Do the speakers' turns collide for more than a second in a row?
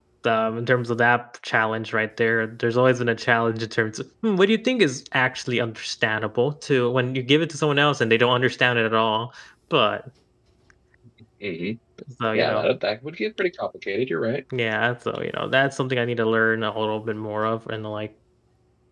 No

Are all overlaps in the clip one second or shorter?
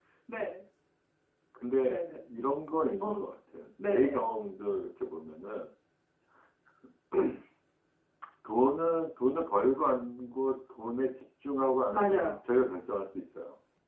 Yes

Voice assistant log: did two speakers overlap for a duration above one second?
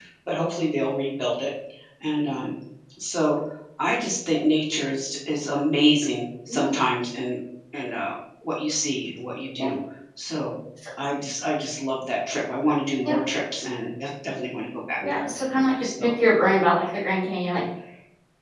No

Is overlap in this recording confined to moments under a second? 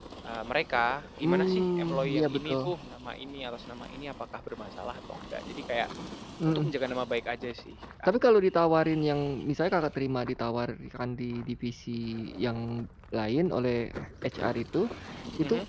No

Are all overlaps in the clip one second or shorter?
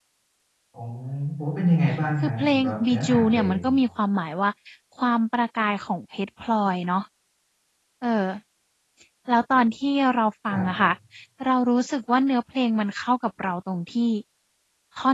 No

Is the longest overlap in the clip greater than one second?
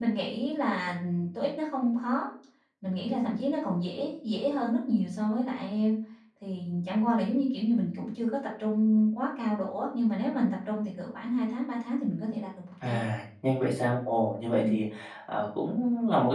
No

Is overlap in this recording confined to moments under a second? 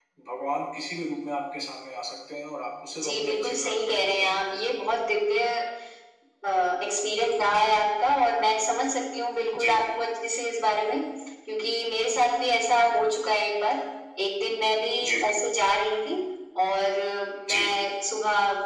No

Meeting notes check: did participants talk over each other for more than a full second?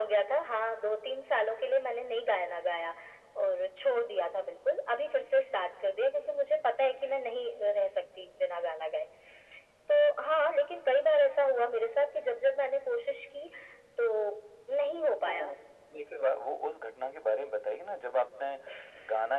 No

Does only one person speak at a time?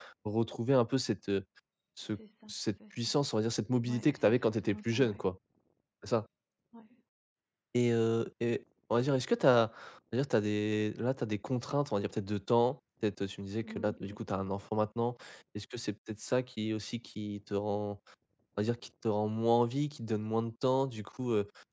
No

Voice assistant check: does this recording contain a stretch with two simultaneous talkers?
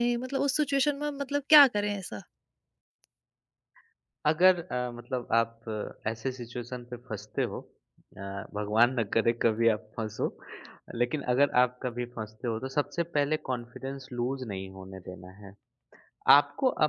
No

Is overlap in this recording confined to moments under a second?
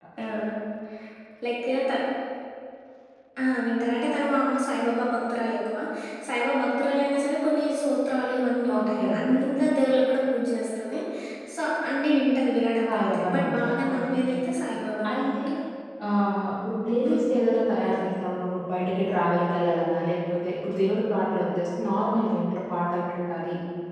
No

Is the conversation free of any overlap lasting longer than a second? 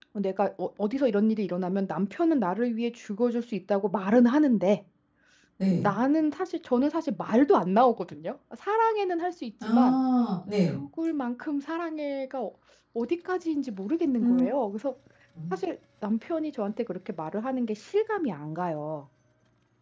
Yes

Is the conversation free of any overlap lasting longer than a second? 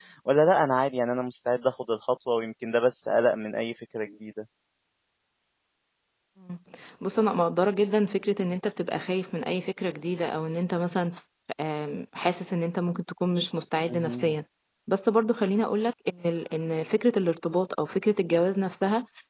Yes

